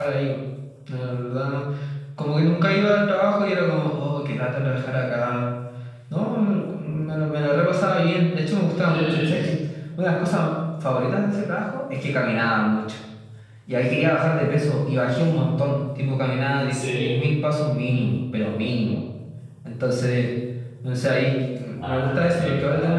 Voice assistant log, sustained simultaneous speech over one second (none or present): present